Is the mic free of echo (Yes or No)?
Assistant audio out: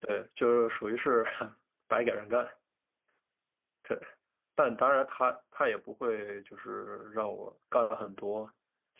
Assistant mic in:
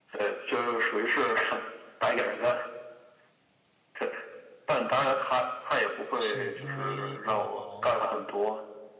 No